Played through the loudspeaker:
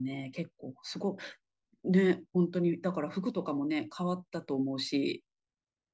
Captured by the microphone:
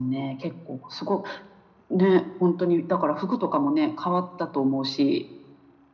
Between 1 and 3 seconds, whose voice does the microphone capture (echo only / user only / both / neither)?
echo only